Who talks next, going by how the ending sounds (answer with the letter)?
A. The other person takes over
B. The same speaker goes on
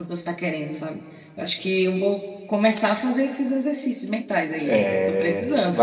A